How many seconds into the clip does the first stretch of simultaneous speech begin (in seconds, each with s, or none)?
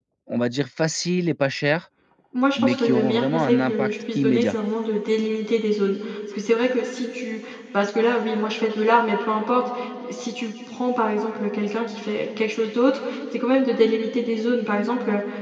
2.6 s